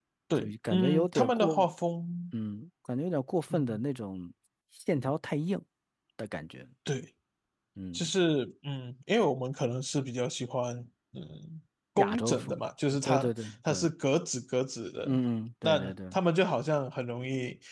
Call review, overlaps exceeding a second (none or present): present